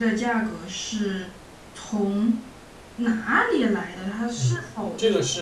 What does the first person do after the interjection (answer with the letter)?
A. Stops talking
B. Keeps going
A